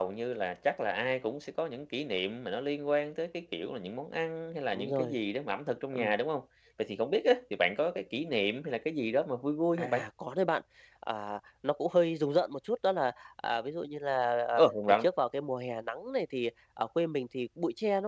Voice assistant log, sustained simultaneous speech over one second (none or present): none